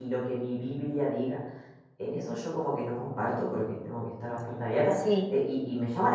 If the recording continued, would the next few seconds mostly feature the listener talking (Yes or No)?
No